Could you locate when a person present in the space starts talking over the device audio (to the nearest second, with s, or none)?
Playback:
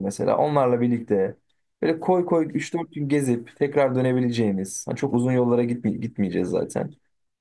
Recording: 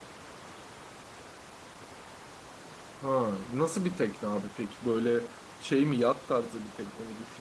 3 s